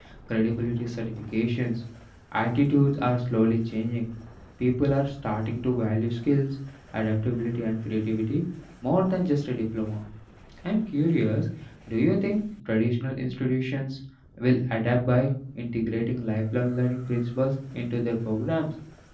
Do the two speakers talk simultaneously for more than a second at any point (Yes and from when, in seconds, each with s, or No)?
No